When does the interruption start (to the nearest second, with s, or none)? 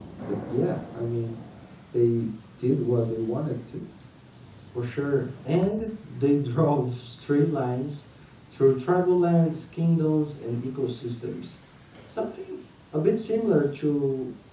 none